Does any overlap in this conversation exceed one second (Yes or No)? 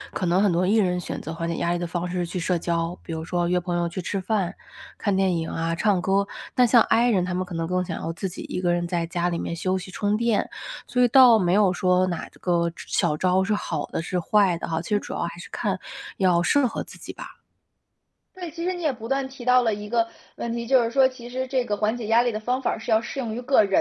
No